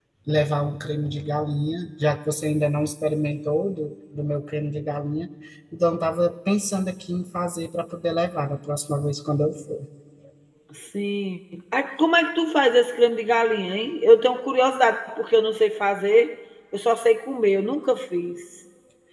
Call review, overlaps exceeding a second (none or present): none